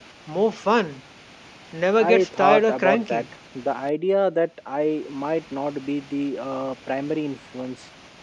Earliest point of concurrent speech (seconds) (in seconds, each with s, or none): 2.0 s